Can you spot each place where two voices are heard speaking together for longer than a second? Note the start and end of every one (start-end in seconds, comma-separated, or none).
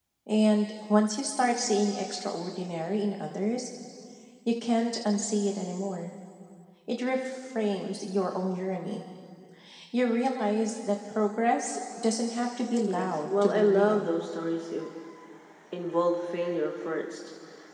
12.9-14.1